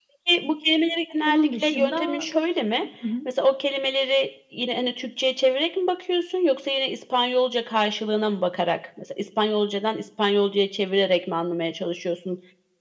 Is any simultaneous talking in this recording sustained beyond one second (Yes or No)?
Yes